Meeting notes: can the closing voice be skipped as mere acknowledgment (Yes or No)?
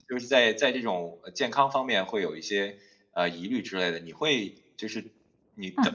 Yes